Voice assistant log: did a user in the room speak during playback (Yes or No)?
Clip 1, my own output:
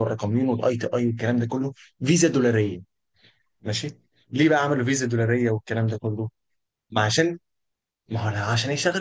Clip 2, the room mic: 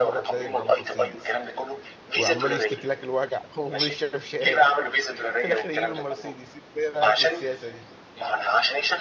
Yes